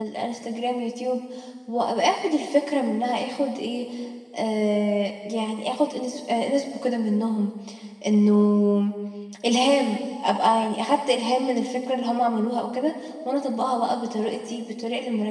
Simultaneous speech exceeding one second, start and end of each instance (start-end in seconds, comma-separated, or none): none